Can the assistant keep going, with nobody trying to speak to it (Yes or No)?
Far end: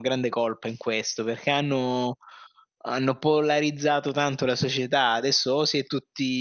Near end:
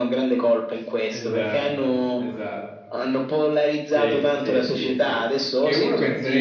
No